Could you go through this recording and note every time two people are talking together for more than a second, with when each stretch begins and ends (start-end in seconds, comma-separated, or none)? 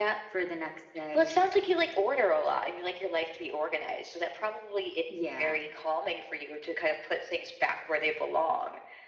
none